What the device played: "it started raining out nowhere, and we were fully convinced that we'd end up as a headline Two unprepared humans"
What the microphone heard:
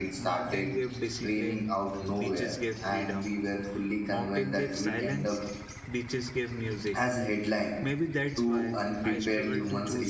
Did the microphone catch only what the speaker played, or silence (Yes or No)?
No